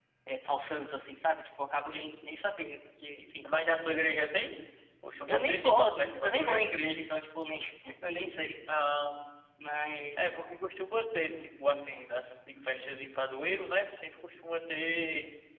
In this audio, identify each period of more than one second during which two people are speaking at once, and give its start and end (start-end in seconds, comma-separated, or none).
5.3-6.7